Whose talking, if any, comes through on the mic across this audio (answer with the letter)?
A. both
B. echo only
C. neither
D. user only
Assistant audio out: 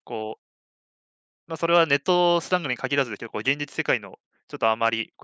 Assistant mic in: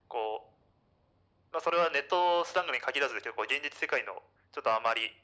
B